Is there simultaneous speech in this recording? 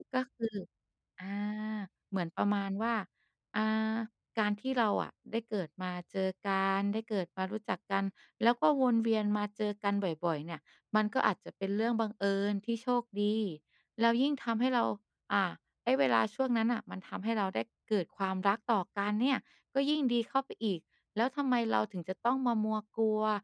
No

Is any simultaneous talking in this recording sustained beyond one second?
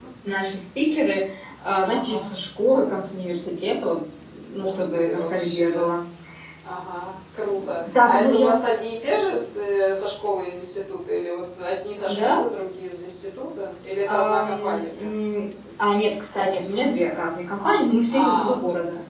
Yes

